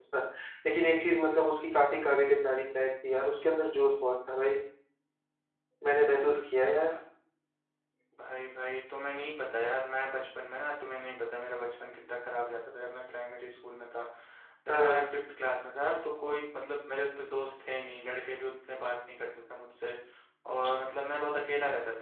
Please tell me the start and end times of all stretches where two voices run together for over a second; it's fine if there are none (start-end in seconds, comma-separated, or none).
none